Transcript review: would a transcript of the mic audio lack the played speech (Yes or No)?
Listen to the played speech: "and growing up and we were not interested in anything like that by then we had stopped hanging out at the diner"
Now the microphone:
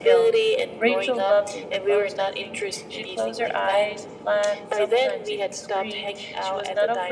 No